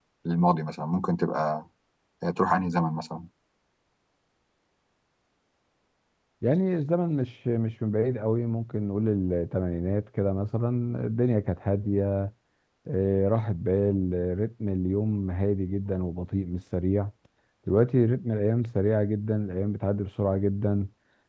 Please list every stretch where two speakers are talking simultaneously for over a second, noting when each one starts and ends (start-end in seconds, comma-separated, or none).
none